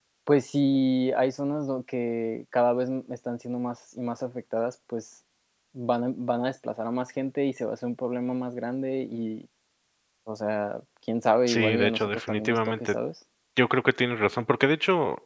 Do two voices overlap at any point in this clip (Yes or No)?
Yes